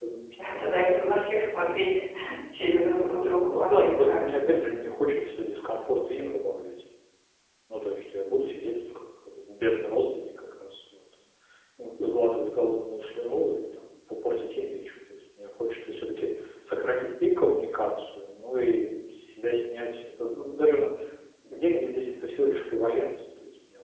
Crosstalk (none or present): present